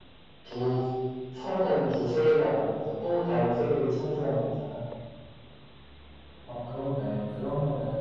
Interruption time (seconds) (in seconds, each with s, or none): none